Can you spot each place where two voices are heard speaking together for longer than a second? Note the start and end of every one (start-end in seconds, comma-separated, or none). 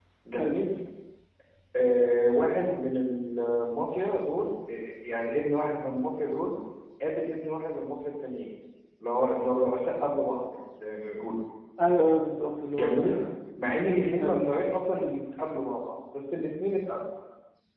none